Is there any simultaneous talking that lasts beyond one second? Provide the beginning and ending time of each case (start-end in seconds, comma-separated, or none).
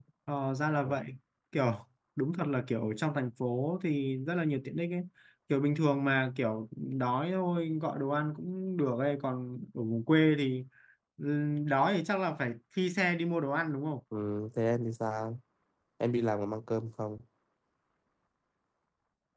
none